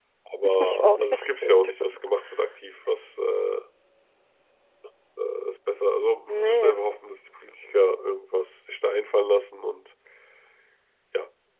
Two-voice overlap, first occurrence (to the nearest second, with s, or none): 1 s